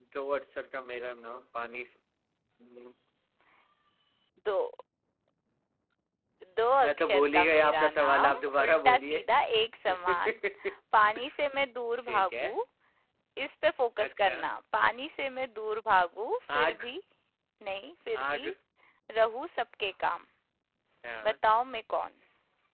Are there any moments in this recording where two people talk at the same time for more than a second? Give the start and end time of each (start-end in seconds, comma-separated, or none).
6.8-9.2